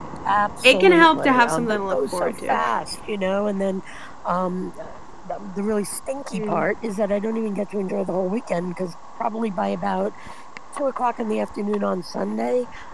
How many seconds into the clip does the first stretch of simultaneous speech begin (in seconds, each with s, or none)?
0.6 s